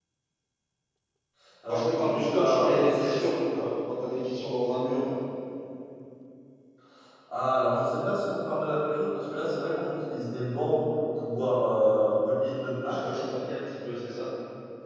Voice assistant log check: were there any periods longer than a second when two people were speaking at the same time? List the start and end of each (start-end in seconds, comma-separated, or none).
1.7-3.1